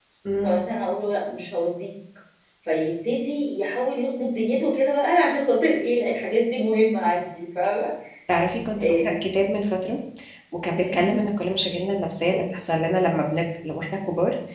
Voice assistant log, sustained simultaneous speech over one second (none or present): none